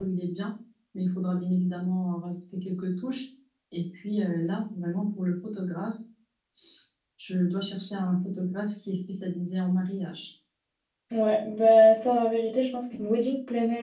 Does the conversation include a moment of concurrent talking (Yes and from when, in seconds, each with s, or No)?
No